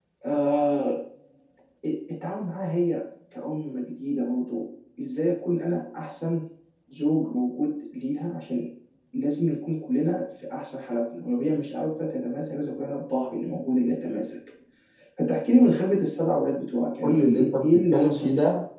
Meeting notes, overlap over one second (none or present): present